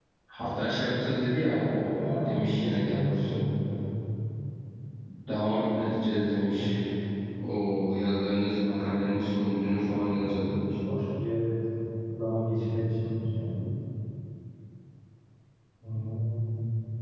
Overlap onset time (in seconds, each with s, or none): 1.9 s